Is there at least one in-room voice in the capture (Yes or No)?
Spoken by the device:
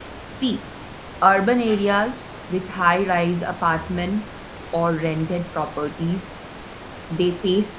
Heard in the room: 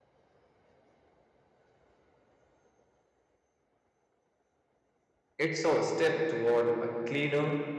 Yes